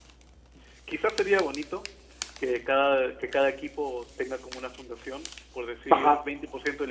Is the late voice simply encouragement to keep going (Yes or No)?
Yes